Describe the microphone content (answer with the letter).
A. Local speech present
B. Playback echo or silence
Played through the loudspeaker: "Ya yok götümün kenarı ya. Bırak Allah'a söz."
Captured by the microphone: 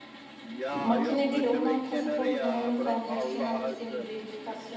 A